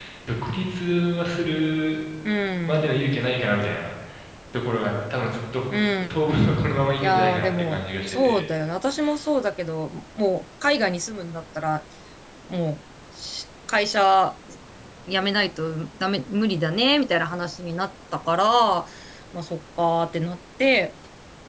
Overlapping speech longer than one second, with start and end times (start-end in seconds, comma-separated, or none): 7.0-8.4